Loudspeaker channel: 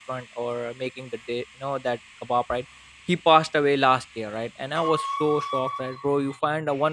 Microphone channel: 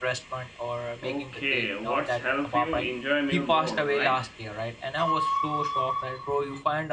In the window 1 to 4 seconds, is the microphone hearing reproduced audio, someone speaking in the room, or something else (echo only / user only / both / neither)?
both